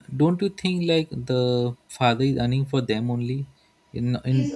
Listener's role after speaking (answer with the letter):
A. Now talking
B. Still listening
A